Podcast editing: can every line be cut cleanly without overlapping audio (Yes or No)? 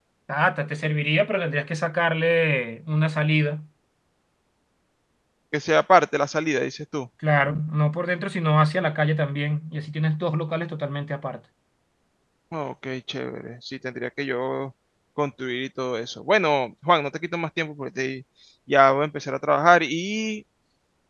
Yes